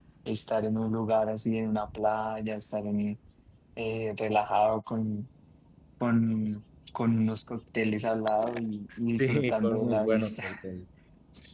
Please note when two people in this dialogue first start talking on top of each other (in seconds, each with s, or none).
9.2 s